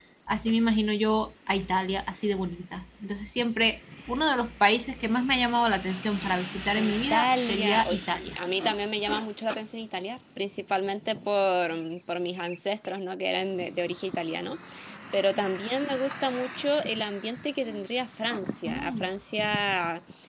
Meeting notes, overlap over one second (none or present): present